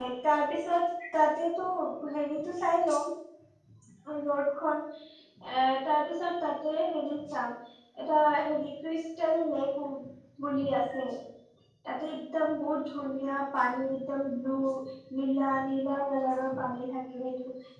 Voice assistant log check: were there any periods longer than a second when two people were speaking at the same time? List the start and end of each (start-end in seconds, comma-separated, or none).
none